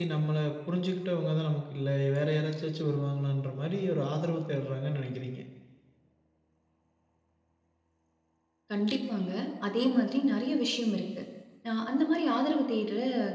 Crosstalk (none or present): none